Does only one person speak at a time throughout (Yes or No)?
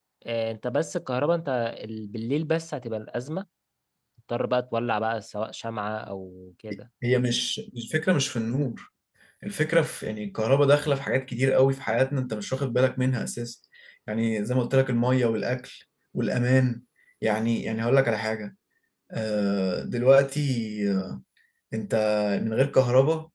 Yes